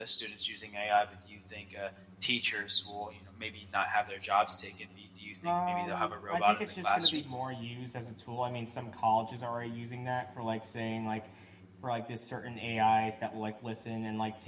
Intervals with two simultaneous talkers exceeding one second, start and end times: 5.4-7.2

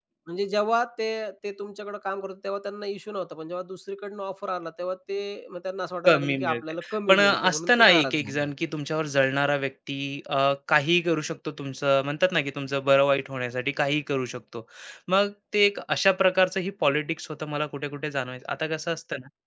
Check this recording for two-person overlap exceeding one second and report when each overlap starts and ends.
6.0-8.5

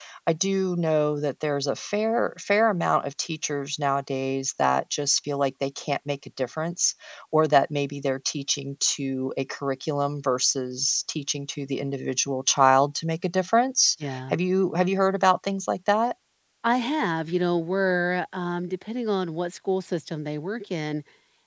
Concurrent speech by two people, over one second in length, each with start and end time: none

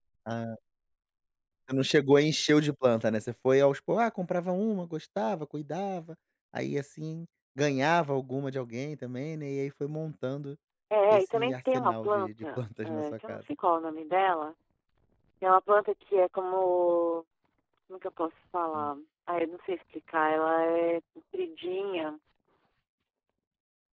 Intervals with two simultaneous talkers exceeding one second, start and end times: 11.1-13.4

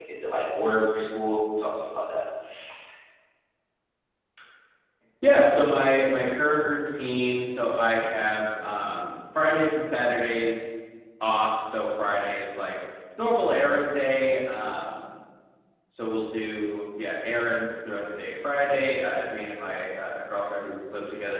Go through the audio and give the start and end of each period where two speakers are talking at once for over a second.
none

